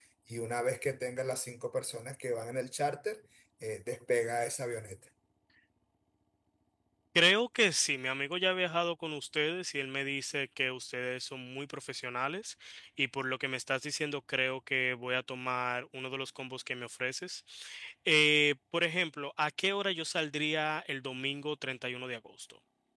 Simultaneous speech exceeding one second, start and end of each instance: none

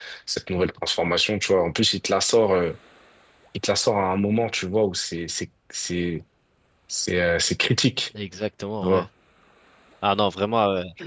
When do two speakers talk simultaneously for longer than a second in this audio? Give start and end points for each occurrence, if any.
none

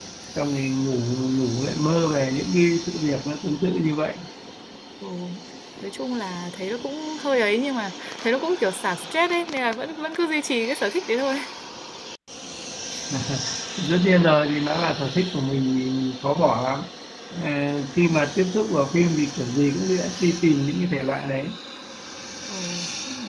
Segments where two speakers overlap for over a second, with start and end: none

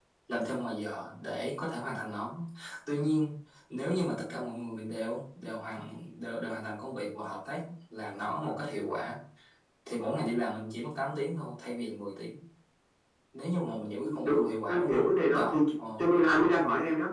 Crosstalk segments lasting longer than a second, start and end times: 14.2-15.6

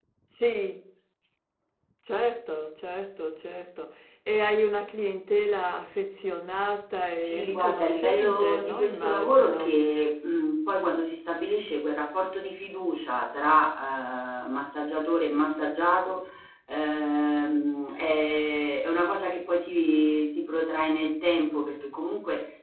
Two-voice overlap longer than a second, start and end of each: 7.2-9.8

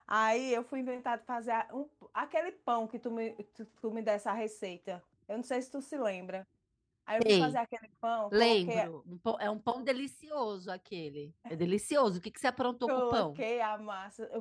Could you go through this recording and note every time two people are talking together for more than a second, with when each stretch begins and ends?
none

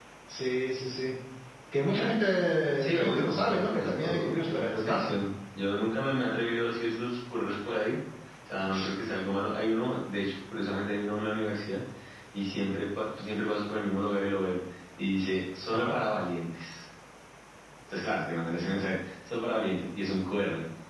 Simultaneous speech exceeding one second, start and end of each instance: 2.8-5.2

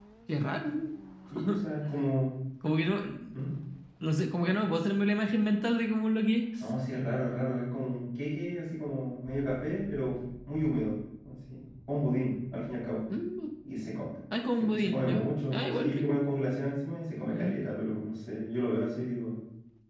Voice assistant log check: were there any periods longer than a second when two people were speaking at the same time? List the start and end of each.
14.6-16.2

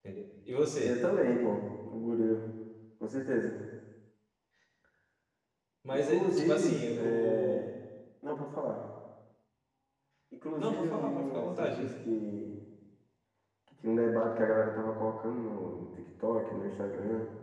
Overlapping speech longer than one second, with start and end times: 5.9-7.6, 10.6-11.9

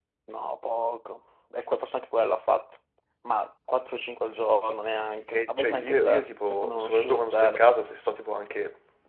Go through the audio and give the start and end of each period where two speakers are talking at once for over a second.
5.3-7.6

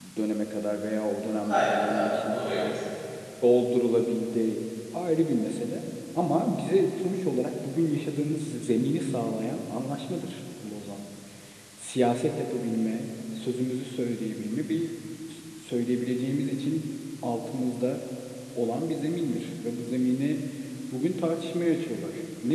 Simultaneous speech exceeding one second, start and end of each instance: 1.4-2.8

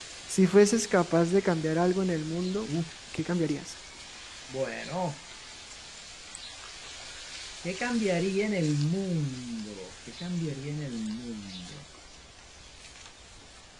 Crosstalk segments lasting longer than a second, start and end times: none

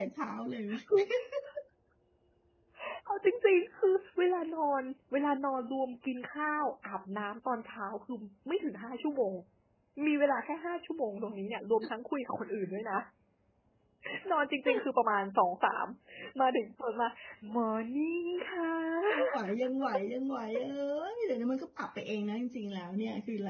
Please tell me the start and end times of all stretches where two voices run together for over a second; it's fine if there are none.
none

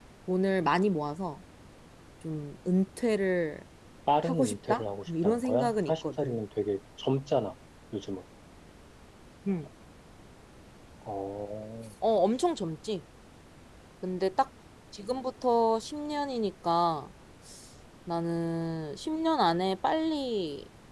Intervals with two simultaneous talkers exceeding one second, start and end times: 4.2-6.4

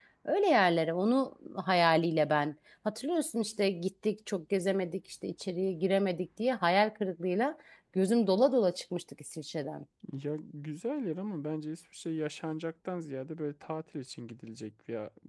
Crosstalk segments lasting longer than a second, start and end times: none

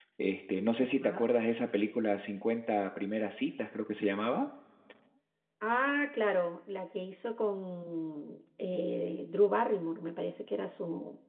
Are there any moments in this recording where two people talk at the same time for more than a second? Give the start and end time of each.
none

